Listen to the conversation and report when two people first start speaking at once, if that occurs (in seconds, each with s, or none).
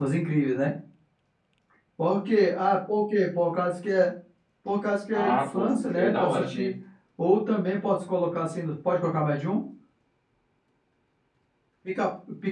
5.1 s